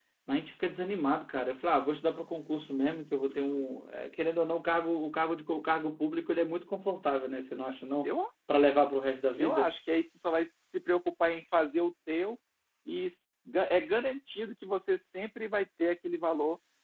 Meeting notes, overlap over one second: none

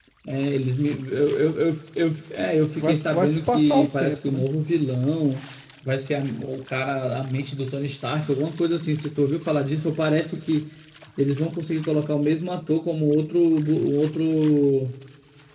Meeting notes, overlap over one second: present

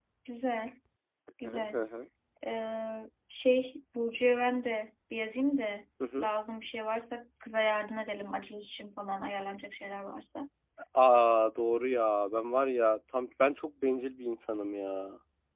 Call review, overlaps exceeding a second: none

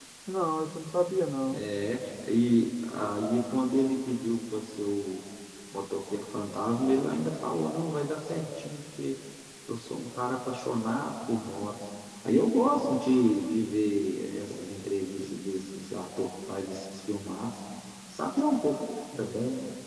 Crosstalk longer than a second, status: none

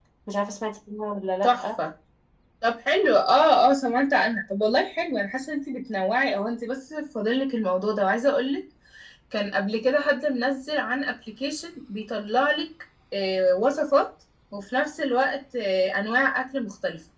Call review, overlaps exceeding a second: none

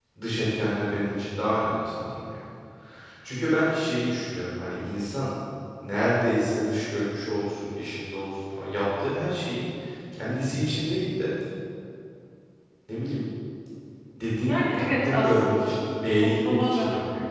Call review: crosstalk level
present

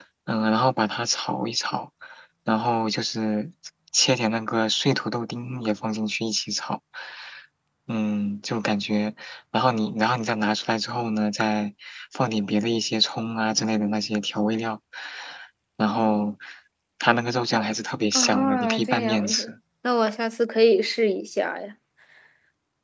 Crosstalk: present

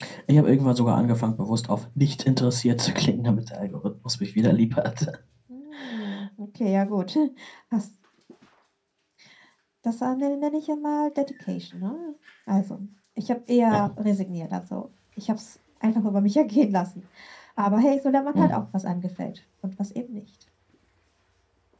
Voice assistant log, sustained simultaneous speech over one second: none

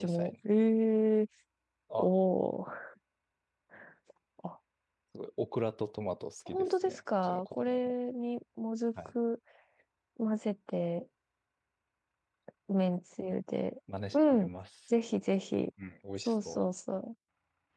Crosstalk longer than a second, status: present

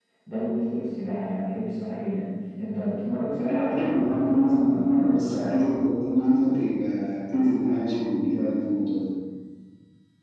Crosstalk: present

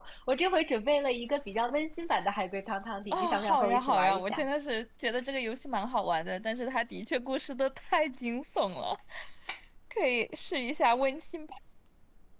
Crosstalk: present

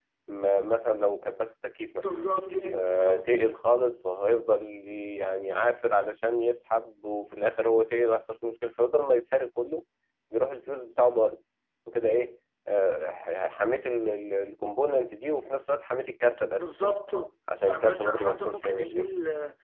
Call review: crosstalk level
present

